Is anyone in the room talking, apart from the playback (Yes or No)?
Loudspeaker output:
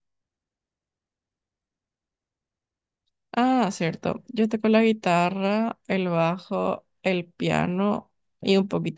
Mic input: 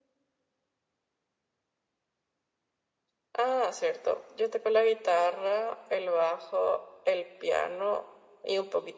No